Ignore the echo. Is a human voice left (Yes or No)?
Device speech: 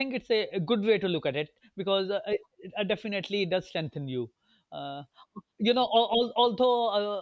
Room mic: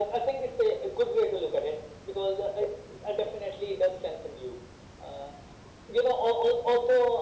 No